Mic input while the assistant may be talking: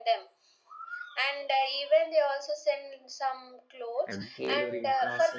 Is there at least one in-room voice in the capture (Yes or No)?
Yes